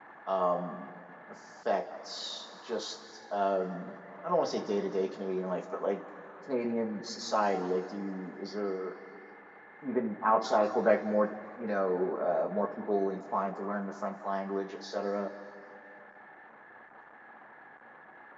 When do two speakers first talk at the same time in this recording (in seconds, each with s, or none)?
none